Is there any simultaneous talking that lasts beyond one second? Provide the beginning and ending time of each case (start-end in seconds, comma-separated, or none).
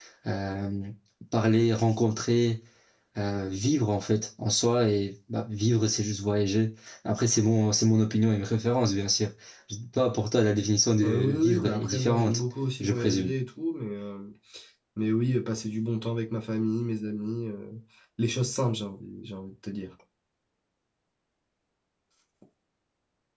11.0-12.4